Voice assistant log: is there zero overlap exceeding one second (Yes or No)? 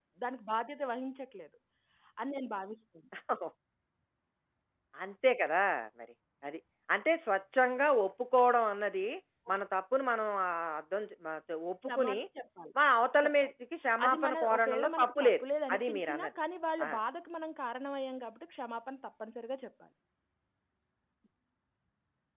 No